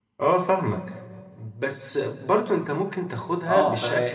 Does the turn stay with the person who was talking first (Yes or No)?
Yes